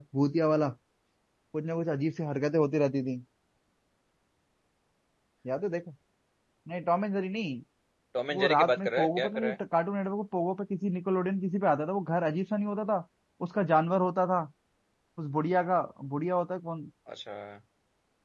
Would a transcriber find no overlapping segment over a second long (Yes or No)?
No